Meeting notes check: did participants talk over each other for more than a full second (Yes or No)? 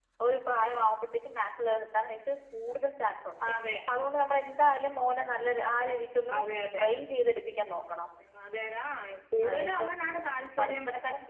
No